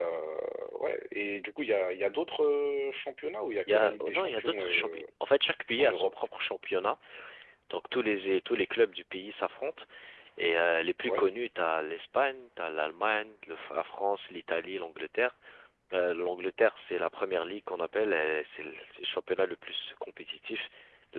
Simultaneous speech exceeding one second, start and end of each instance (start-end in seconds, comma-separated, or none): 3.7-5.0